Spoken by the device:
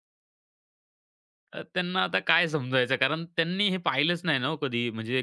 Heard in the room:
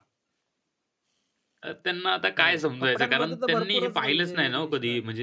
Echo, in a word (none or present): present